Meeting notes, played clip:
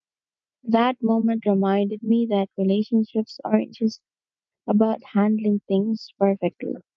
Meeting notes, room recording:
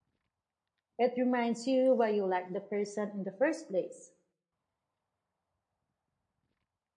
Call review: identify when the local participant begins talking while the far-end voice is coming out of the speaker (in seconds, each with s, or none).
1.0 s